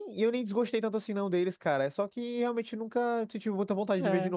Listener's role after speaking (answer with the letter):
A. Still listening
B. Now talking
B